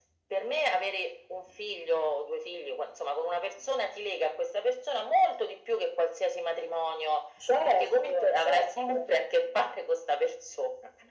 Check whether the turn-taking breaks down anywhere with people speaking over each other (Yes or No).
Yes